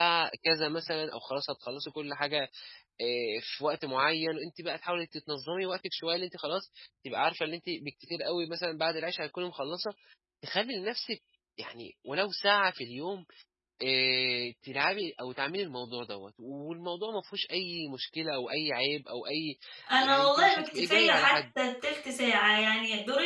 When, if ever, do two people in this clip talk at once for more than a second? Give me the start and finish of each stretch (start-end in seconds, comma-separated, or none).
20.0-21.3